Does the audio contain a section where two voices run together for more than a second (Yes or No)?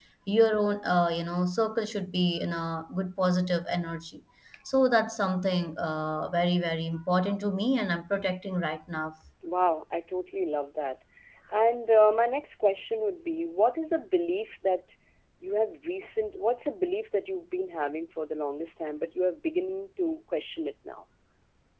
No